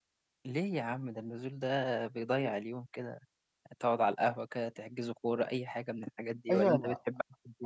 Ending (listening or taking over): taking over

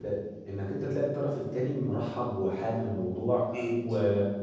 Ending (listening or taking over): listening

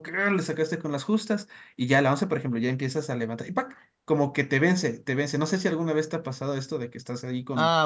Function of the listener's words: taking over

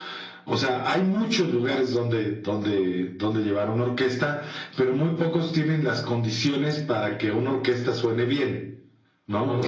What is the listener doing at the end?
listening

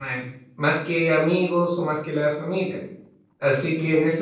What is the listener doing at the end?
listening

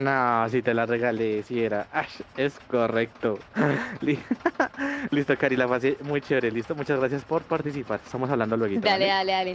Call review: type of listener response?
taking over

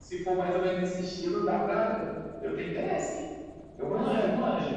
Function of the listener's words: taking over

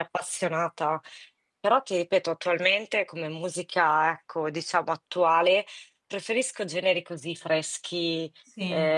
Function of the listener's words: listening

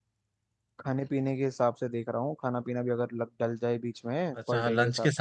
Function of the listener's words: taking over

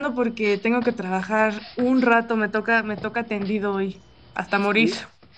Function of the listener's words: taking over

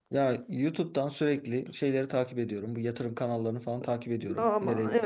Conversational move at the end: taking over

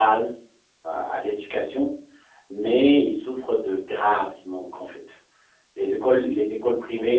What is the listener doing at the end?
listening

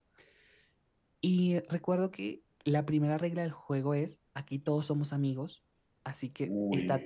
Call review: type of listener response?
listening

